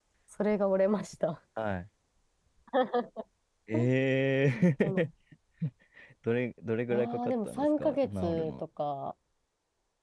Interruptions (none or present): present